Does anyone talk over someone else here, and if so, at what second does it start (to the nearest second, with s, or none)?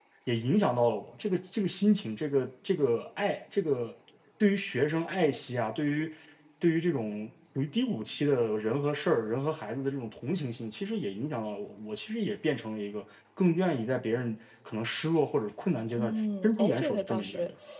16 s